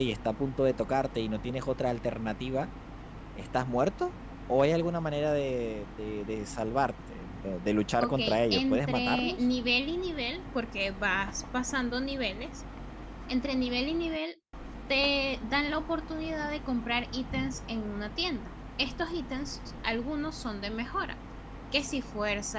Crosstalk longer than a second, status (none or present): present